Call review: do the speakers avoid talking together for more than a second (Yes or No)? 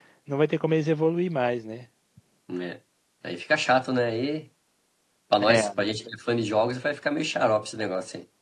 Yes